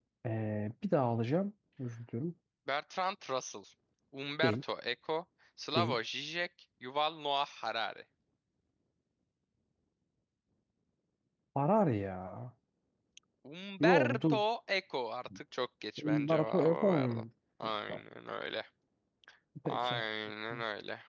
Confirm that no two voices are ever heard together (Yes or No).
No